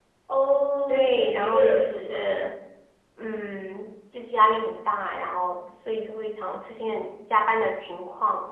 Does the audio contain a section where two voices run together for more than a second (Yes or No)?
Yes